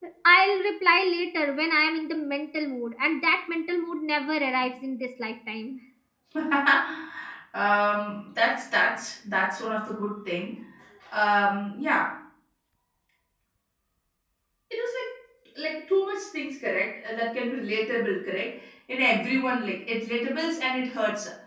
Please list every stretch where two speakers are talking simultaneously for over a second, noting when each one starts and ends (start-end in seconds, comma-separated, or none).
none